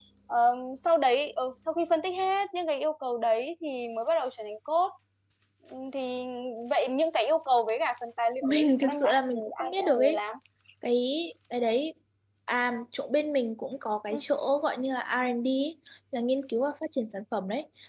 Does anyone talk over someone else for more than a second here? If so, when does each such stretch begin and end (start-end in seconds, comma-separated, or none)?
8.4-10.2